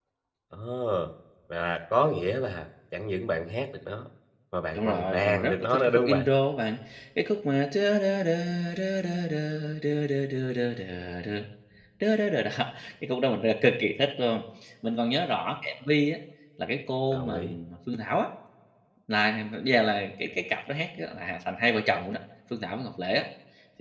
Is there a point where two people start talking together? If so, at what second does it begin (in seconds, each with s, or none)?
4.7 s